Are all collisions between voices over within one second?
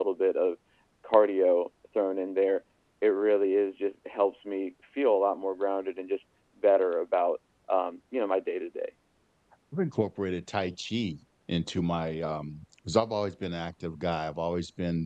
Yes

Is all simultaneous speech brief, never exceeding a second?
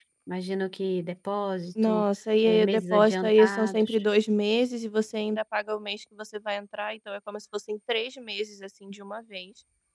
No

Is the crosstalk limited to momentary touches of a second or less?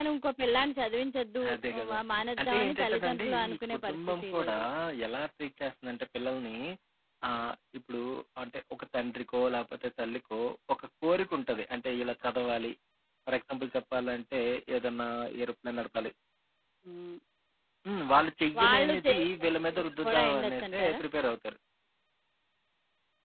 No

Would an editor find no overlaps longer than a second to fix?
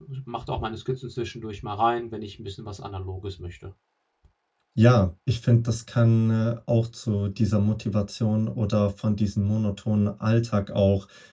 Yes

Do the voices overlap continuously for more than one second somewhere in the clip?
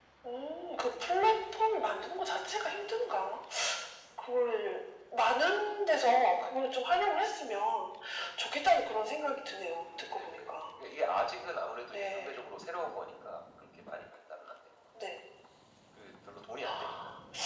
No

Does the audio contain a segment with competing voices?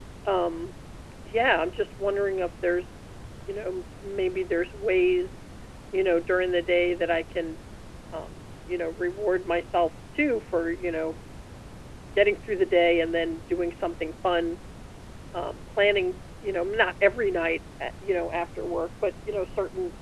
No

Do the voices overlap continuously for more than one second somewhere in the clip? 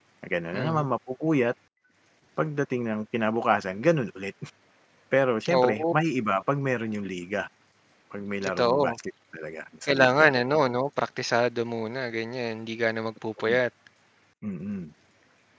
No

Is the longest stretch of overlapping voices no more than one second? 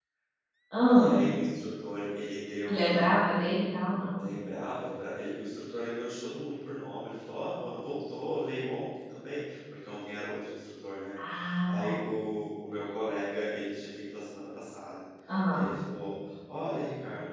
Yes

